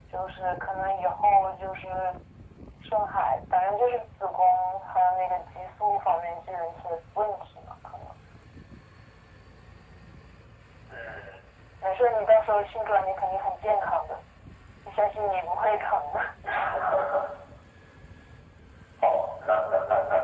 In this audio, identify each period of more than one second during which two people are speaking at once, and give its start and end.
none

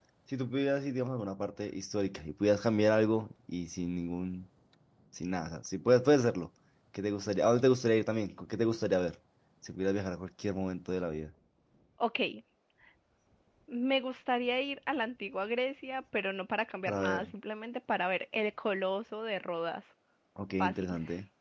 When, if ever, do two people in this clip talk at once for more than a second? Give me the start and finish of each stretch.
none

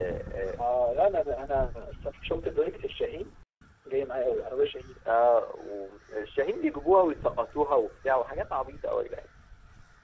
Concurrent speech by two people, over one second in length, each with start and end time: none

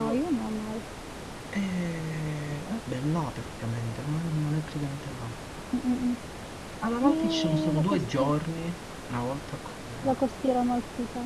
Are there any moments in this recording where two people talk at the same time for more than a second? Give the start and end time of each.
7.0-8.3

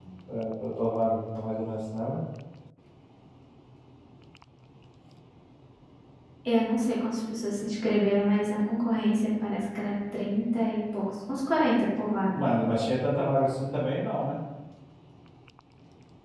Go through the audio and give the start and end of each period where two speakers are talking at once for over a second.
none

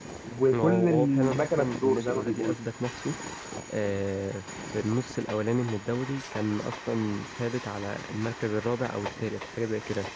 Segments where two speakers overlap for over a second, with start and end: 0.5-2.6

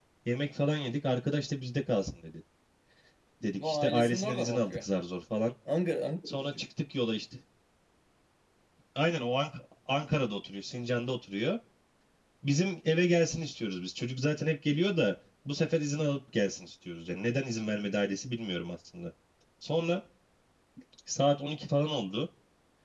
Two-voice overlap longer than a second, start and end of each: 3.6-4.8

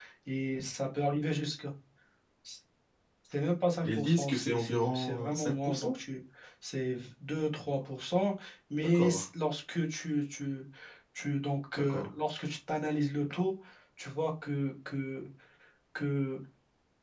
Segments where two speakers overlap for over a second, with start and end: 3.8-6.0

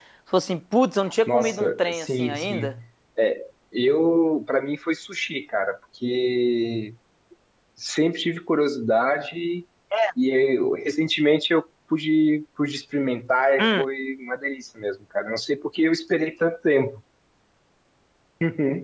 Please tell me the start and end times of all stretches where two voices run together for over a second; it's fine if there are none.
1.3-2.7

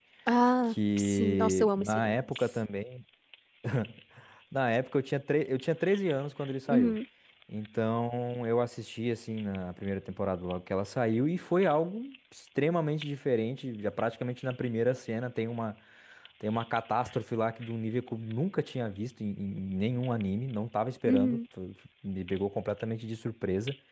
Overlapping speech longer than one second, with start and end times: 0.7-2.2

